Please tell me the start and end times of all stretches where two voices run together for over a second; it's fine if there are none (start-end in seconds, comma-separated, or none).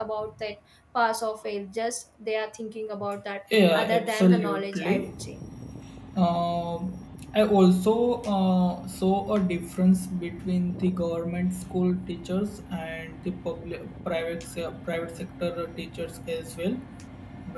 3.7-5.1